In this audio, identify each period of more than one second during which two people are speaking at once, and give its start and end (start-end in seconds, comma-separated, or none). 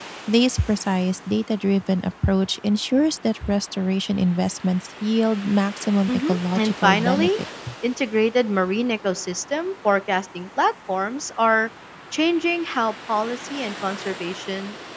6.1-7.3